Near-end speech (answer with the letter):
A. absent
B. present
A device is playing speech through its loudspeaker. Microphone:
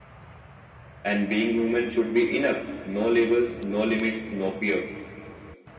A